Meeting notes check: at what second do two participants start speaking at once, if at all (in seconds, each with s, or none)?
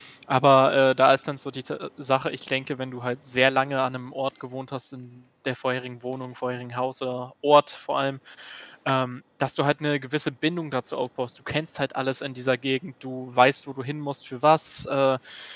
none